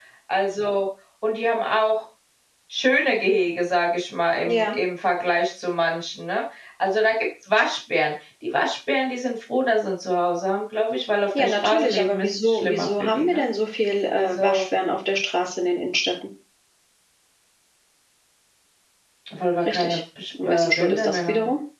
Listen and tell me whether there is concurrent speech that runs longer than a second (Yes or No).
Yes